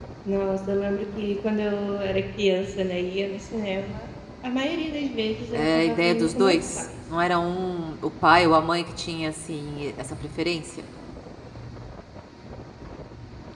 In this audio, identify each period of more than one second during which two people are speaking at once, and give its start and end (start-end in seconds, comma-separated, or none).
5.5-6.8